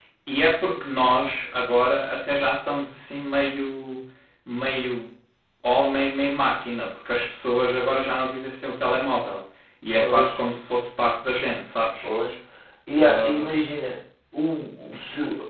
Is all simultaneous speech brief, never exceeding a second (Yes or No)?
Yes